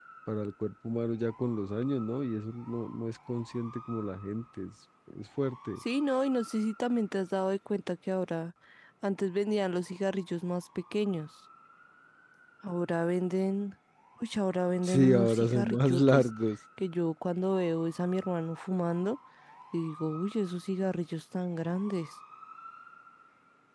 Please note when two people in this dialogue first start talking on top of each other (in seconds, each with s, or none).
14.8 s